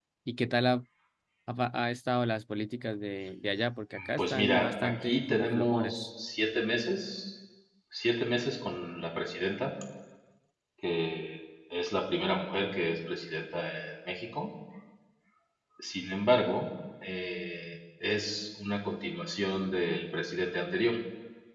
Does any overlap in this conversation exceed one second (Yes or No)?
Yes